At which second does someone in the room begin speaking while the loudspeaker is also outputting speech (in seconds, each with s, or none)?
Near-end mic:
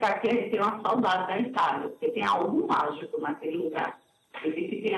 none